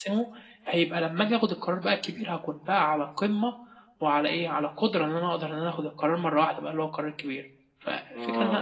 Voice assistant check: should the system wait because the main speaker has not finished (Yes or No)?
No